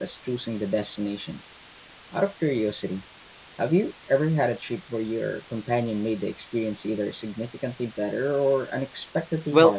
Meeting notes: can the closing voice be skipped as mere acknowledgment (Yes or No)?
No